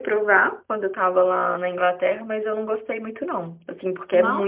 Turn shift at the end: No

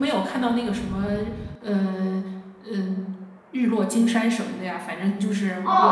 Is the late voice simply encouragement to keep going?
No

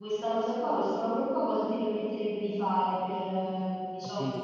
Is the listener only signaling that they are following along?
No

